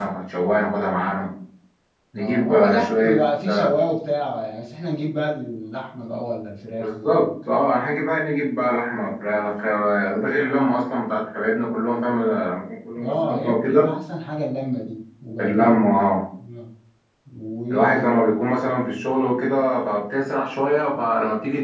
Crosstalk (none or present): present